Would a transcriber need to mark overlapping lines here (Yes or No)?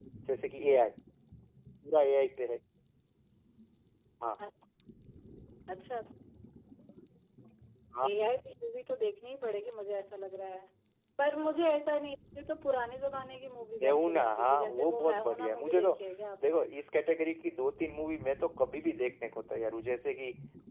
Yes